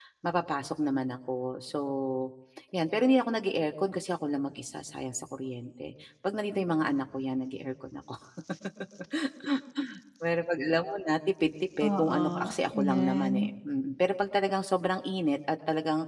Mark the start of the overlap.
12 s

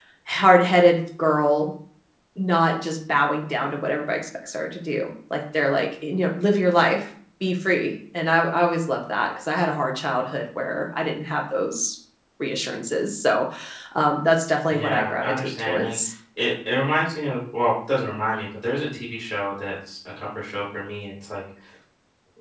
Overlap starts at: 15 s

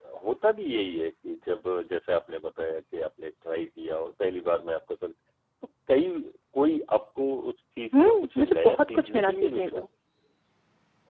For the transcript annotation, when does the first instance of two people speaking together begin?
8 s

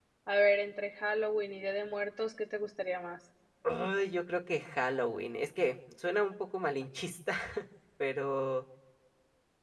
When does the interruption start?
none

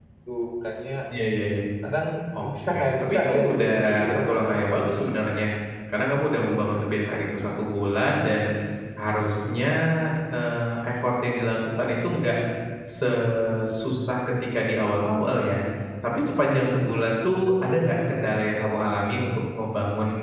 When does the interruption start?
2 s

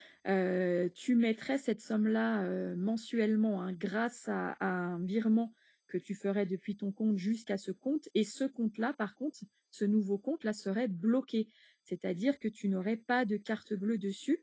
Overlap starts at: none

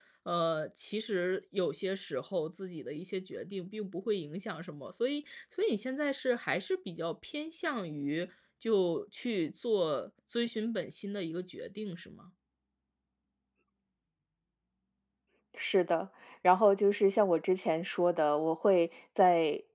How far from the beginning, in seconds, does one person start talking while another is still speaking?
none

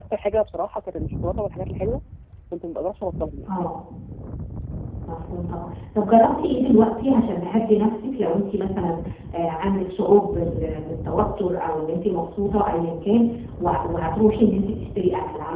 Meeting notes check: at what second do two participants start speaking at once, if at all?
none

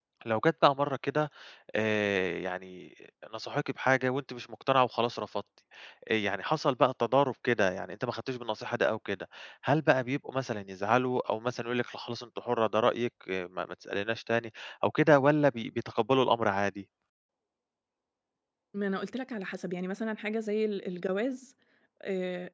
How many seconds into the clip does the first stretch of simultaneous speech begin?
none

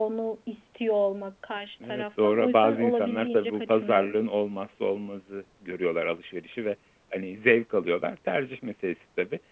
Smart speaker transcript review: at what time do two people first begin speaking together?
2 s

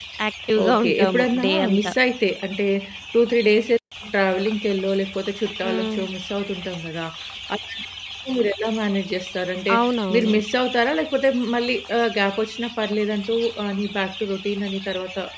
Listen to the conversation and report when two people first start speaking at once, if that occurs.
1 s

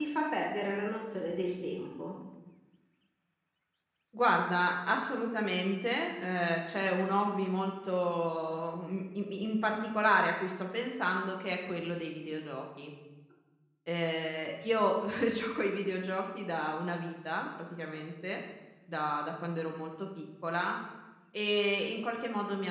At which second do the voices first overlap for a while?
none

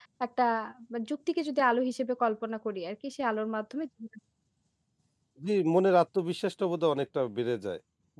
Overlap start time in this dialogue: none

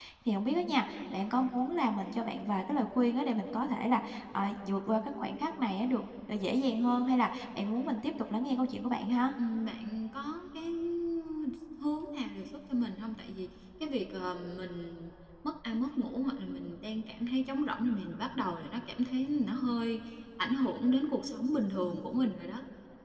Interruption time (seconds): none

